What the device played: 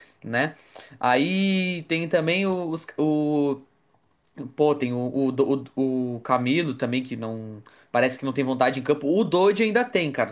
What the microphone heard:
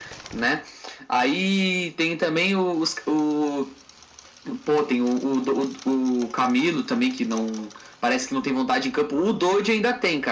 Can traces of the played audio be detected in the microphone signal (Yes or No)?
Yes